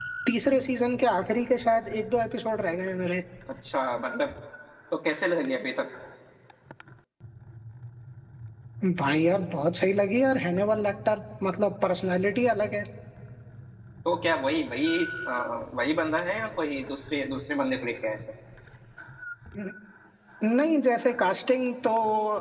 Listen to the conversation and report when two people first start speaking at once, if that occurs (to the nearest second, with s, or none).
none